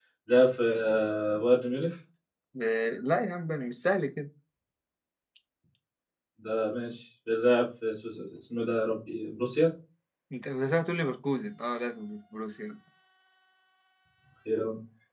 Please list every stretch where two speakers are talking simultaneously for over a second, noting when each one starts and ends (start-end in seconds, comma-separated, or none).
none